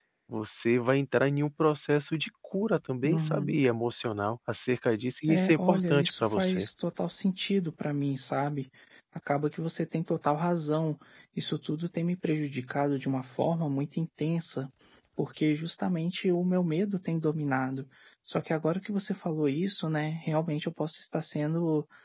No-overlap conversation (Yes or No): No